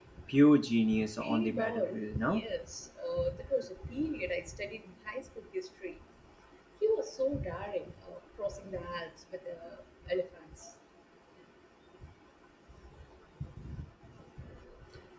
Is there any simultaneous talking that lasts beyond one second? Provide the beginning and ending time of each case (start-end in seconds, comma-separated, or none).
1.2-2.4